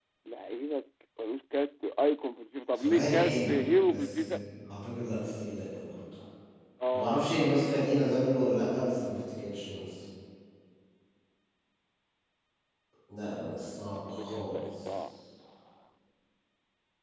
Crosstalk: present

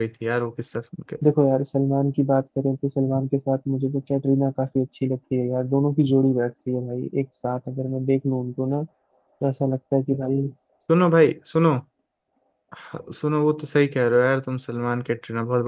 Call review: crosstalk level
none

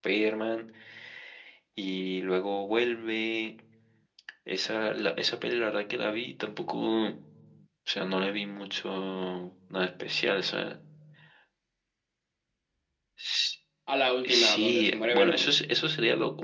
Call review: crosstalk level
present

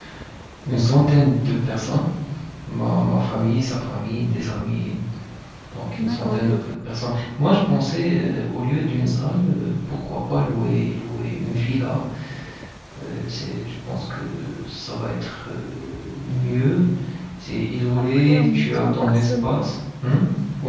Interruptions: present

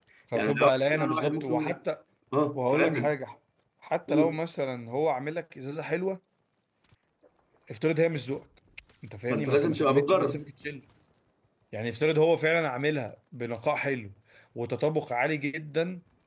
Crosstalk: present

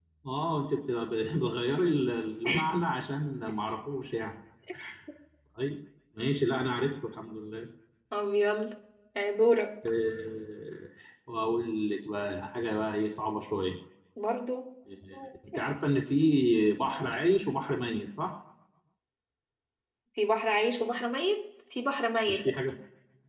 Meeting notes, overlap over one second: none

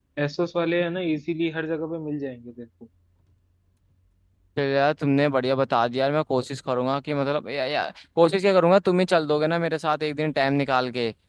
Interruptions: none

